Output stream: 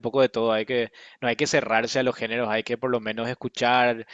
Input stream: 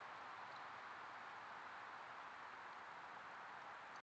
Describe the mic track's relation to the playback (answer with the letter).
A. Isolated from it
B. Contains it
A